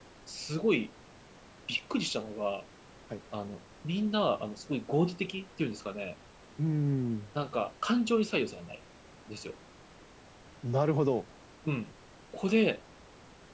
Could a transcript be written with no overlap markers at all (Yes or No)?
Yes